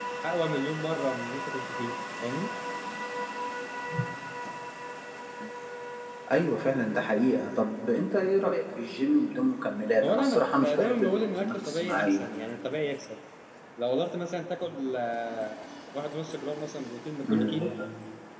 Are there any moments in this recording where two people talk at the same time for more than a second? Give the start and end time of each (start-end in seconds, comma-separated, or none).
10.0-12.2